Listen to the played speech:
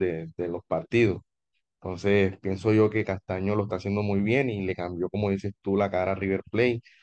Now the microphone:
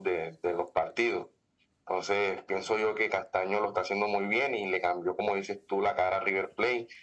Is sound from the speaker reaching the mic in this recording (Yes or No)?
Yes